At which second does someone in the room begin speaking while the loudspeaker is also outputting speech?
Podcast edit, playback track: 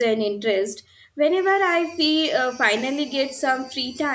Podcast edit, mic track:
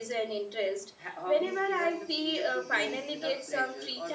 1.0 s

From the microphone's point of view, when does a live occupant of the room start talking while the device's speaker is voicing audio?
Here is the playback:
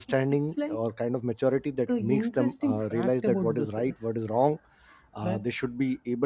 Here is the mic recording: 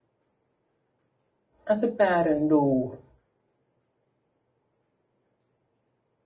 1.6 s

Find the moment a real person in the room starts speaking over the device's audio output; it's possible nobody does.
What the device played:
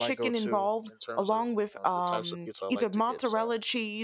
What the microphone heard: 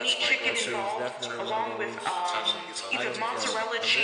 0.4 s

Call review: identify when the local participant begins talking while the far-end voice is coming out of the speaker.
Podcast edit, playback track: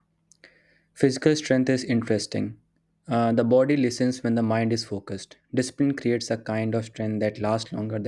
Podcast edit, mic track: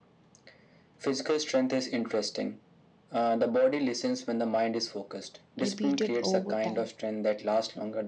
5.6 s

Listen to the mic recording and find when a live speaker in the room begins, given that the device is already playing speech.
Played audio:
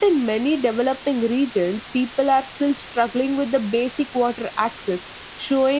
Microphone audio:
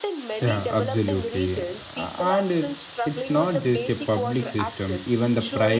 0.4 s

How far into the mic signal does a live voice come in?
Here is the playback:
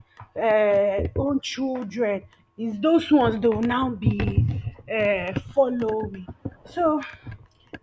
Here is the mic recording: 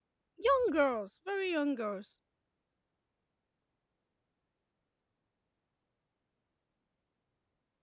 0.4 s

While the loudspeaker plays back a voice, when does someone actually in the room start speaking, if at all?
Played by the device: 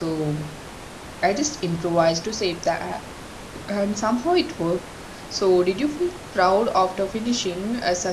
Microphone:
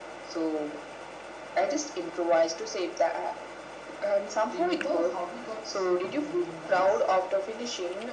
4.5 s

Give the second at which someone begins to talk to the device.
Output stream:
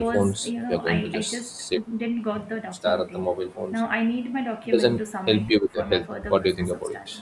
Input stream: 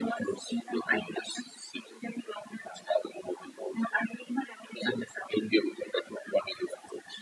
none

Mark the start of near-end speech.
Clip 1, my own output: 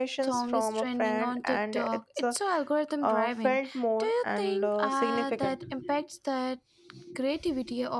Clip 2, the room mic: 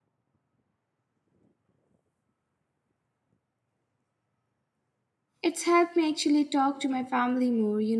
5.4 s

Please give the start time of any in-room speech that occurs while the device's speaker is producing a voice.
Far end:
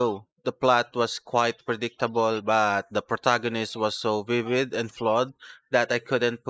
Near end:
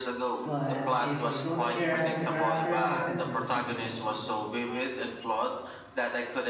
0.4 s

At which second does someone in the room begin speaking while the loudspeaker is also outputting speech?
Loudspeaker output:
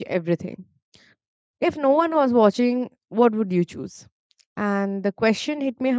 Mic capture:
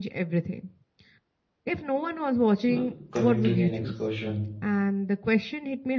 2.7 s

